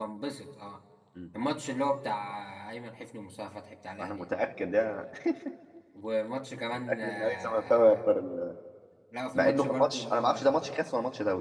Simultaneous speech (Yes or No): Yes